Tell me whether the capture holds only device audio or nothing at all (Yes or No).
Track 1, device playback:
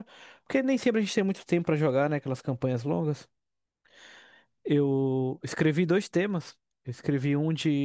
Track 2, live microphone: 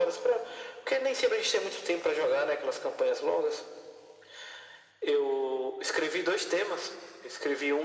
Yes